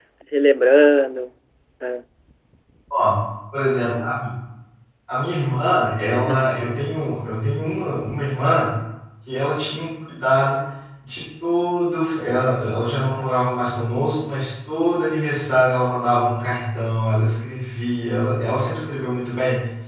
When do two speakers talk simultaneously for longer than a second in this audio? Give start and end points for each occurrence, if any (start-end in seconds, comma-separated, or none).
none